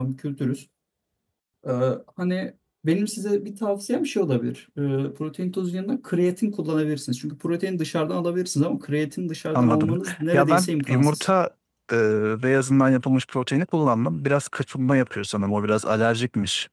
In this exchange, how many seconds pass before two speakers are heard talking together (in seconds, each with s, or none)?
9.5 s